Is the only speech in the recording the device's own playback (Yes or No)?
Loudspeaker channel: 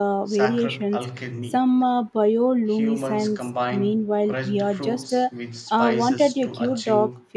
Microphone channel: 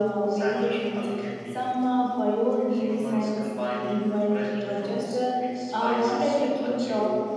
Yes